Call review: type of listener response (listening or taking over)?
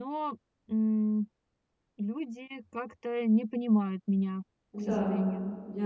taking over